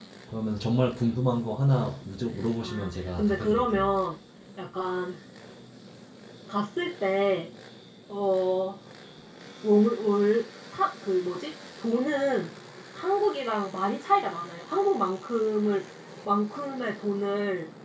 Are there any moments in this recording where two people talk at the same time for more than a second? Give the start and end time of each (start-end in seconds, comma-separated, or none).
2.6-4.0